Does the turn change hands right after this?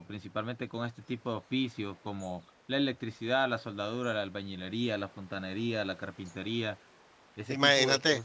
Yes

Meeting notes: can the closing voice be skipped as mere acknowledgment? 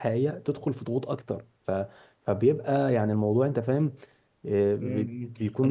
No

